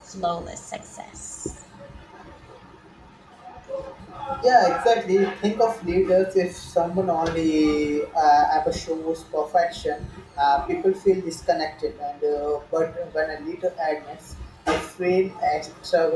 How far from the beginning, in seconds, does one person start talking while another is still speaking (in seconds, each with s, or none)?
none